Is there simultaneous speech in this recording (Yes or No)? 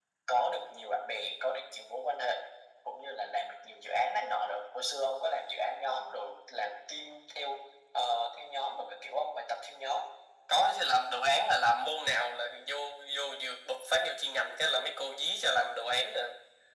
No